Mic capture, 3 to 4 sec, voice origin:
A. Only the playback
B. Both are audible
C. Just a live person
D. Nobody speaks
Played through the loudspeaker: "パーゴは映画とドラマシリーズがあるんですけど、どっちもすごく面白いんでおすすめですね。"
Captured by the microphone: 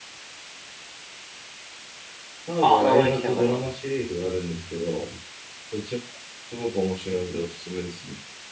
B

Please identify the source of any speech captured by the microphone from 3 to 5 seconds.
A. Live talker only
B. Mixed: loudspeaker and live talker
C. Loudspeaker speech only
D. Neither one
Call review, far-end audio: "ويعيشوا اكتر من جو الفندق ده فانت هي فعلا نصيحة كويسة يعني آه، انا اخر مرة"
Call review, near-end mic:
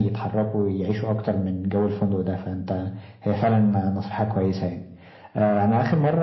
C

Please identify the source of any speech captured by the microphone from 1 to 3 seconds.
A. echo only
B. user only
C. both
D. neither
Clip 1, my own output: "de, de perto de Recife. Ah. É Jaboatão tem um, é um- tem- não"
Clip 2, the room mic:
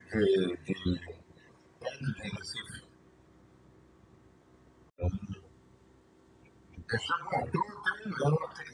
A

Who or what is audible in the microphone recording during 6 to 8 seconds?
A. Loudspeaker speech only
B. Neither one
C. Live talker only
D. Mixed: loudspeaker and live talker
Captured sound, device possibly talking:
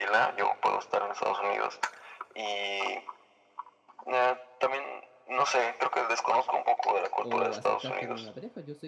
D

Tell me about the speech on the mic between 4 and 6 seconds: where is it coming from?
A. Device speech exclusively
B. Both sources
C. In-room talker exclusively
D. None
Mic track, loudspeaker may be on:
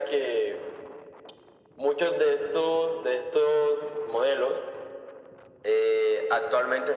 A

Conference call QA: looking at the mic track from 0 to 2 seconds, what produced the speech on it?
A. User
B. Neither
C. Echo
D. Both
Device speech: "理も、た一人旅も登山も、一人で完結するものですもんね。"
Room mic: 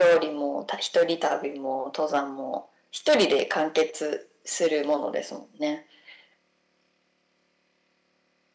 C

